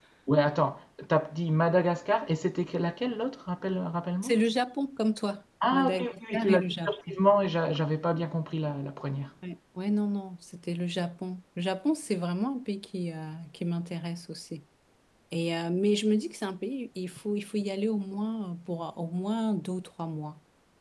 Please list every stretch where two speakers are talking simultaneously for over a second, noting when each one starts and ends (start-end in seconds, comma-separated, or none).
5.7-7.2